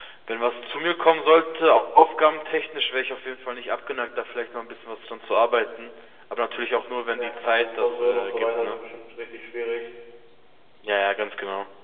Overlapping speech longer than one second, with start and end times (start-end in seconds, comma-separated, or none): 7.1-8.8